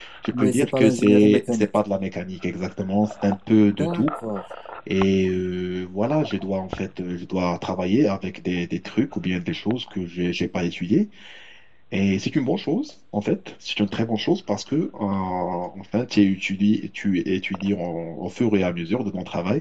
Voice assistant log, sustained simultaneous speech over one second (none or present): present